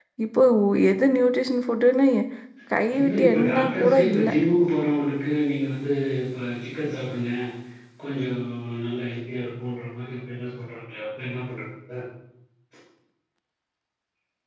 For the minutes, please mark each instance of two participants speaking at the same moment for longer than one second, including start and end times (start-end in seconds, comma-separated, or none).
3.0-4.3